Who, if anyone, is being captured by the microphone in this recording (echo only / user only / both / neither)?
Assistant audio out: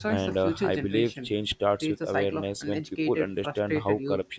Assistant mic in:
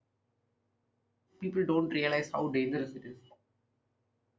user only